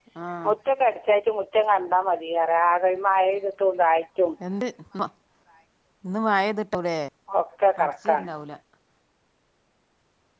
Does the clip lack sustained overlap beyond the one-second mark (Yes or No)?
Yes